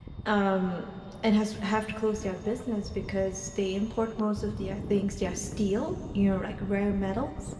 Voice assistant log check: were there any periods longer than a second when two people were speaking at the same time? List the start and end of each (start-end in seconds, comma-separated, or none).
none